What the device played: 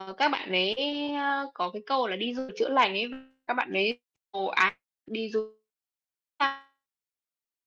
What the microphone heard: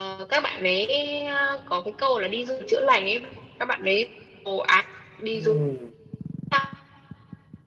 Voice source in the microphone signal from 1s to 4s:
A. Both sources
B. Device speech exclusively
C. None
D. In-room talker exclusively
B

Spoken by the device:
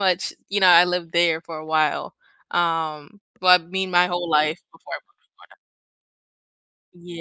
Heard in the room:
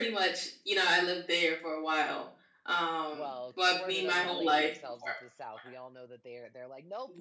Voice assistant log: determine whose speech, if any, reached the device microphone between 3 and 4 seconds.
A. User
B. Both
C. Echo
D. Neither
B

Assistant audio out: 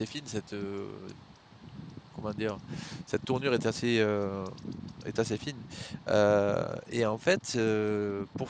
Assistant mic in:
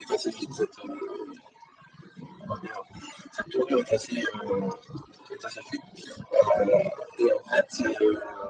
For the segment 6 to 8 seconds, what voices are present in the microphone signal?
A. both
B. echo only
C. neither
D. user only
B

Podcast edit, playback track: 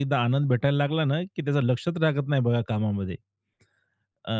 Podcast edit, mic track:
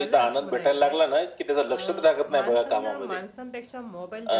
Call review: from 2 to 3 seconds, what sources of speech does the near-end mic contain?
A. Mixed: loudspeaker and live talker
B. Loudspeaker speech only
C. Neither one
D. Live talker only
A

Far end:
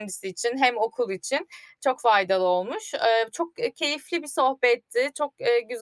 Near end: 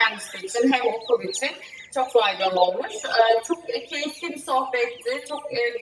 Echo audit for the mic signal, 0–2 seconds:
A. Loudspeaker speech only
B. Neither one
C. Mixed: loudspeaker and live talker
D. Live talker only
A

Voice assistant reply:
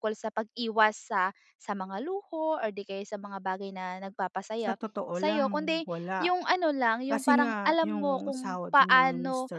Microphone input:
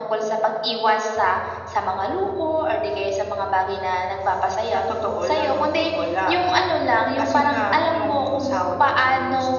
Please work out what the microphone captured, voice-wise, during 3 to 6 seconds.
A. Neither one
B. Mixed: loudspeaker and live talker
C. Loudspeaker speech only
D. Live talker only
C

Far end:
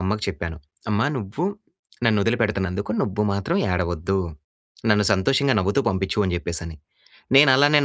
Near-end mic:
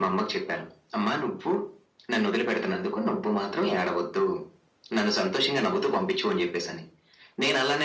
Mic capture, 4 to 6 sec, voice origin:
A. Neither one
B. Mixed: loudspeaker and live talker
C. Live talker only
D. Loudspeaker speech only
D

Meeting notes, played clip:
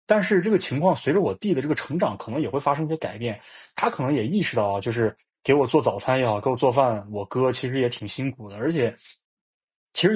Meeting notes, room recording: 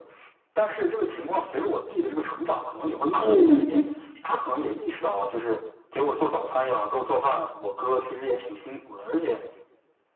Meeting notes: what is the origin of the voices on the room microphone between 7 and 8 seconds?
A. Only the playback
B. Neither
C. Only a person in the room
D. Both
A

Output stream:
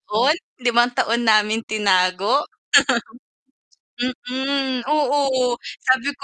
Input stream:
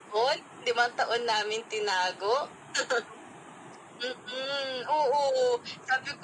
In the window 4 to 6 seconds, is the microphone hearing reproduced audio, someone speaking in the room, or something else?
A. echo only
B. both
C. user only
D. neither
A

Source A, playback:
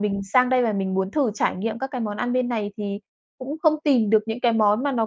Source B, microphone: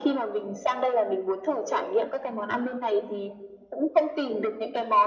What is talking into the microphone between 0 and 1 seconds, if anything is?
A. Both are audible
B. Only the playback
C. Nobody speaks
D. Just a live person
B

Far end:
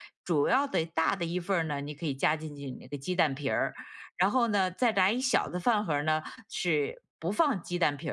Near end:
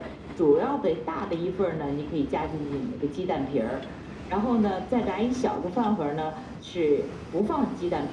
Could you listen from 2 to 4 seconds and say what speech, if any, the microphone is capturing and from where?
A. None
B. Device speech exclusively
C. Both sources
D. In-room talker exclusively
B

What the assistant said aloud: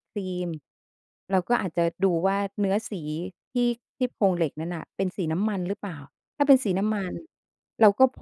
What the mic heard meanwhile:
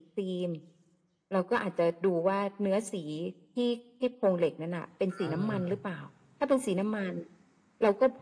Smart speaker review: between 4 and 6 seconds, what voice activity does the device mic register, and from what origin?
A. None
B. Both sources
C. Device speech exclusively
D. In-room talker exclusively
B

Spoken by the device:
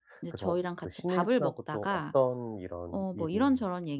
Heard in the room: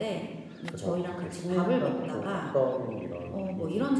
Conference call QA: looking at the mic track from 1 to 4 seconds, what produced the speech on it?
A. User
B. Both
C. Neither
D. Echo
D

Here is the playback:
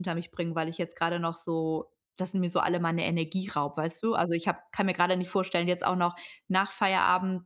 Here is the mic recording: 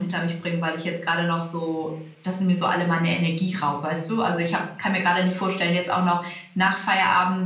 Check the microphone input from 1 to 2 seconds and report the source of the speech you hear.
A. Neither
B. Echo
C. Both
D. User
B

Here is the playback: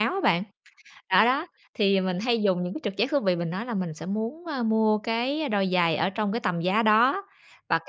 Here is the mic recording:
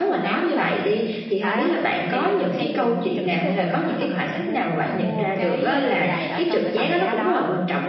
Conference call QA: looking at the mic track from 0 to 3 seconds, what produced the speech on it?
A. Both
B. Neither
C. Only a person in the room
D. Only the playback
A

